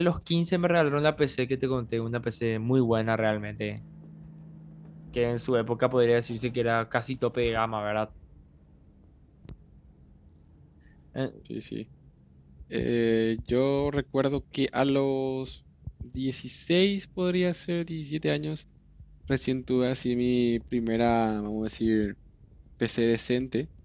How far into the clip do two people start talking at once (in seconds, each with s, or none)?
none